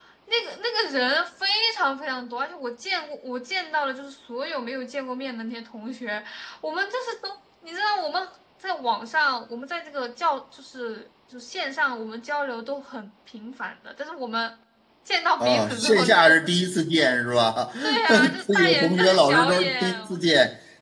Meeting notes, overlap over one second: present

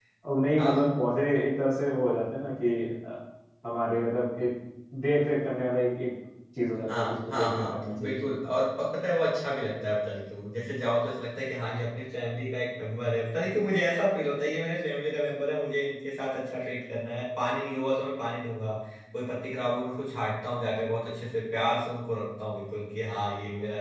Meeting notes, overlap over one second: present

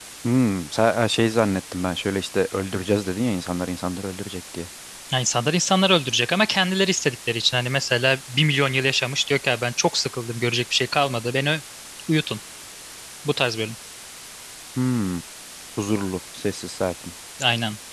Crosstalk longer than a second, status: none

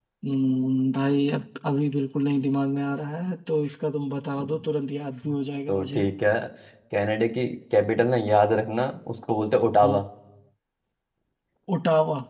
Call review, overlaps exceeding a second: none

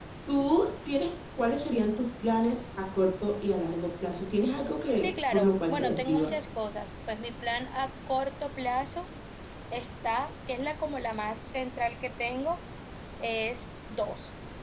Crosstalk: present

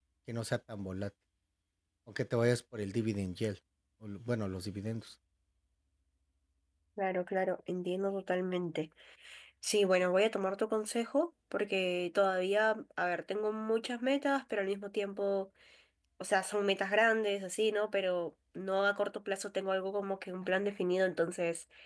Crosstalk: none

